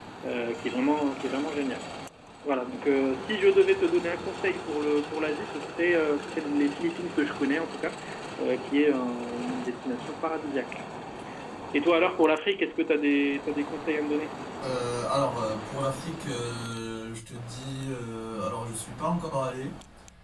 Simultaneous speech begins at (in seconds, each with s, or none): none